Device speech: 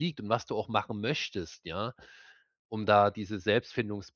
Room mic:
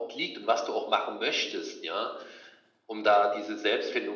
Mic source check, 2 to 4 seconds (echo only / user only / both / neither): echo only